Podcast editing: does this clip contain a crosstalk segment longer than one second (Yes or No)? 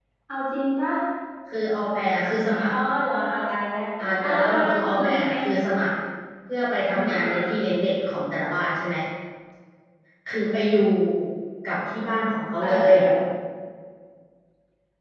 Yes